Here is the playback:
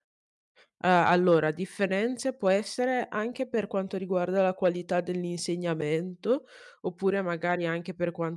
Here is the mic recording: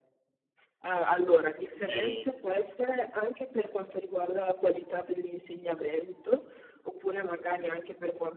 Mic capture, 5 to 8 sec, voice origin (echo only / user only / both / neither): echo only